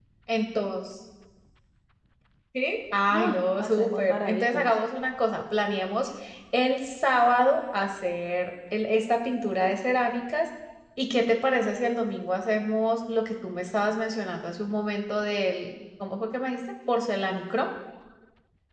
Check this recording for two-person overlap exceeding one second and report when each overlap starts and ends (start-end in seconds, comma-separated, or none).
3.1-4.8